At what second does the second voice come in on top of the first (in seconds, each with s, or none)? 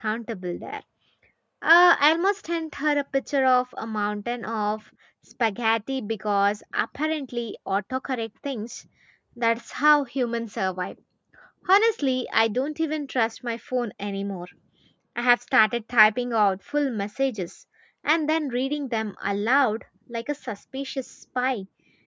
none